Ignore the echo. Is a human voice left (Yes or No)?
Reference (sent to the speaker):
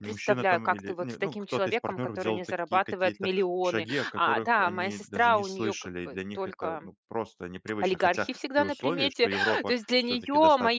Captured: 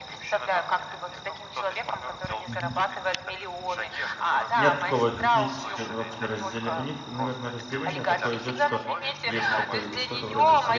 Yes